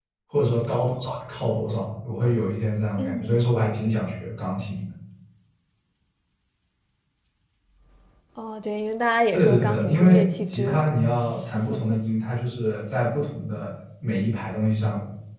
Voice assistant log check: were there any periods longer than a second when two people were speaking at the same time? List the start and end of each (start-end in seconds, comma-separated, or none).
9.3-11.0